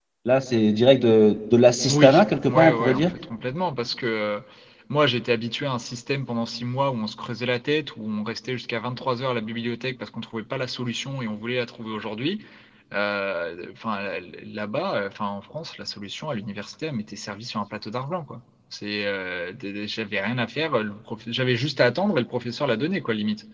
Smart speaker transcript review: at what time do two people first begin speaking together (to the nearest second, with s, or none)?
2 s